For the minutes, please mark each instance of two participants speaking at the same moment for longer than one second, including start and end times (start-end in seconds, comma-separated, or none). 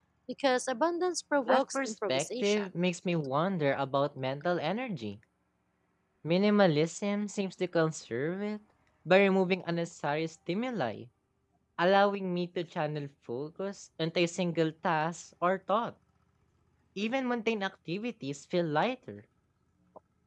1.5-2.7